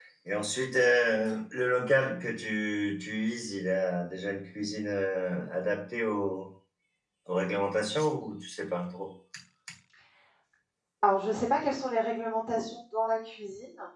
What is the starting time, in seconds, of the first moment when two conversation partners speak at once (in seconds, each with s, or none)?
none